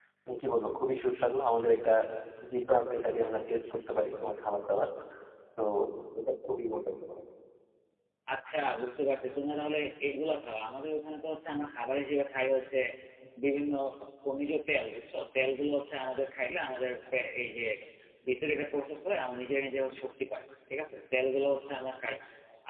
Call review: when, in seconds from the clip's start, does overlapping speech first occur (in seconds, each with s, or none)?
none